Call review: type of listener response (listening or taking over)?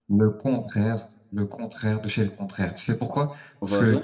listening